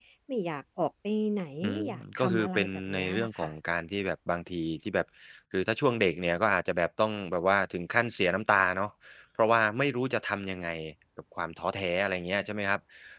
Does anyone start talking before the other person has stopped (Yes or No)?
Yes